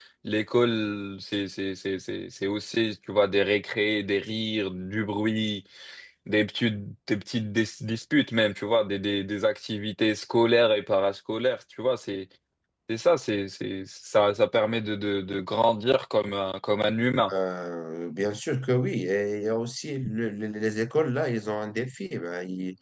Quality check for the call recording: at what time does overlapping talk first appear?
none

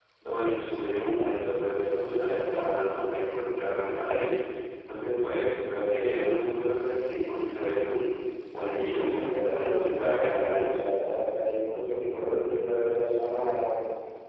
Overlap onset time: 8.9 s

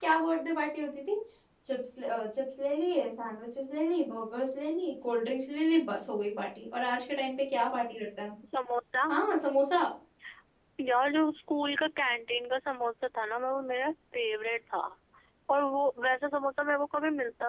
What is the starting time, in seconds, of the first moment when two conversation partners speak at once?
none

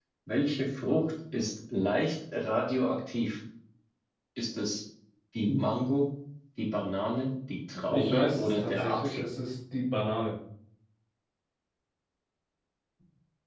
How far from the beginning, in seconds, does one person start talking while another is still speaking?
7.7 s

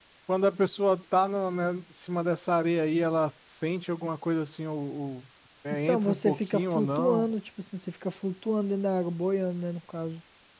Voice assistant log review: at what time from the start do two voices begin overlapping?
5.7 s

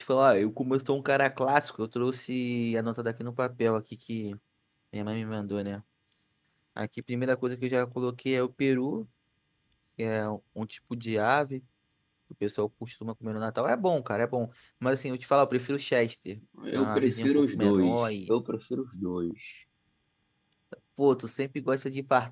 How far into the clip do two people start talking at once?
16.6 s

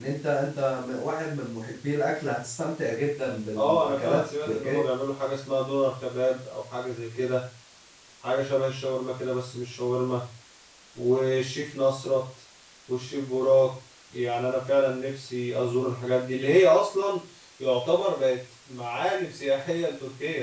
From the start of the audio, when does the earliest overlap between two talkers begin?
3.5 s

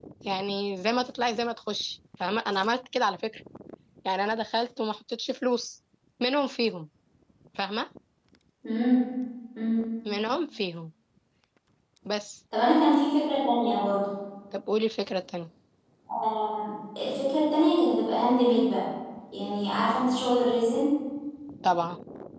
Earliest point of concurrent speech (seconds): none

